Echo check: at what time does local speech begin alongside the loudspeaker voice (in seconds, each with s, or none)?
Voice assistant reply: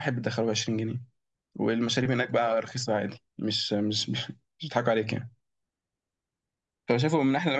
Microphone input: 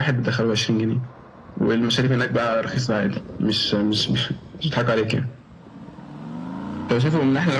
none